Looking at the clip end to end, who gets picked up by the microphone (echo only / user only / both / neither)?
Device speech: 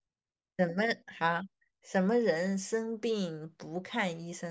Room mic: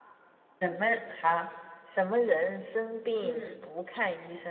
both